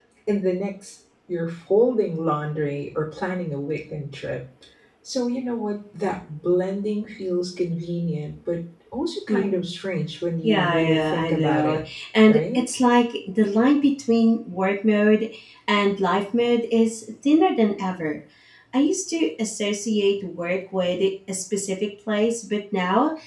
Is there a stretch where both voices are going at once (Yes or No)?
Yes